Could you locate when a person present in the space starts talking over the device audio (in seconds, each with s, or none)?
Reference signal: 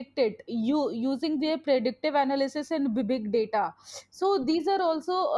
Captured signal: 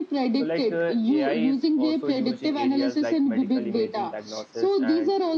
0.3 s